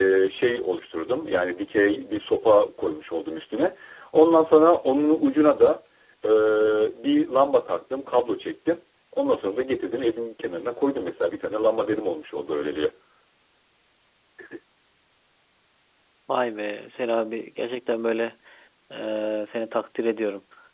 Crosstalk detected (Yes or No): No